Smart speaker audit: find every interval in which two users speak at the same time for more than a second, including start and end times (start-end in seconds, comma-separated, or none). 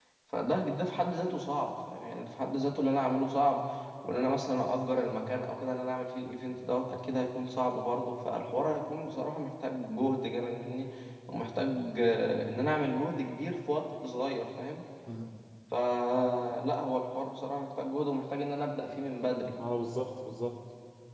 none